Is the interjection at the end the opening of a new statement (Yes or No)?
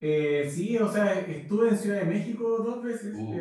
No